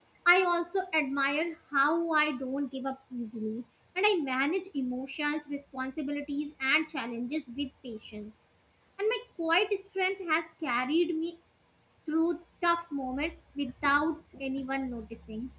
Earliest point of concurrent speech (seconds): none

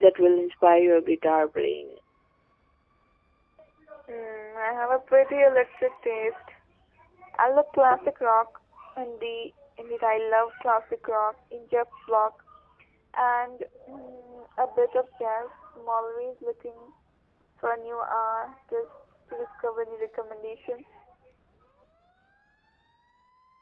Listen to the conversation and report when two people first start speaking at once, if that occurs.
none

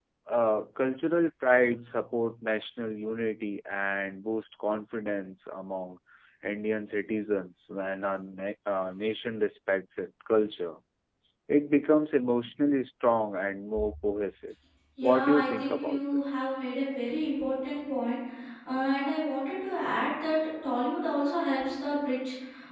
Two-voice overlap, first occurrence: 15.0 s

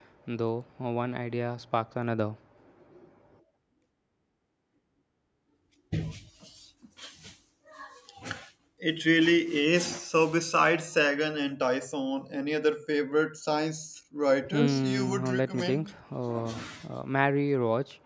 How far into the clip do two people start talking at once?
14.5 s

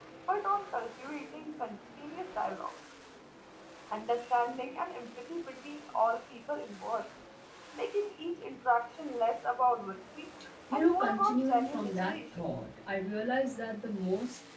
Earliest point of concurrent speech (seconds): 10.7 s

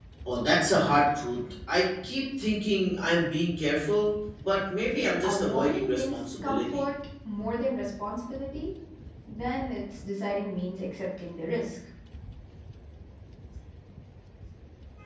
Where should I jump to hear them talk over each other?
5.0 s

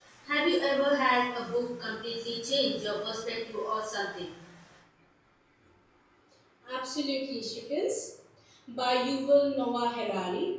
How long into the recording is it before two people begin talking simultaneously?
none

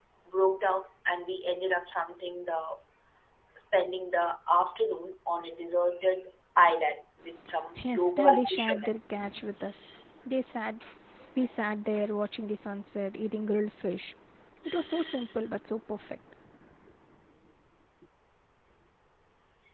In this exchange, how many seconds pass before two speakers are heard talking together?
7.8 s

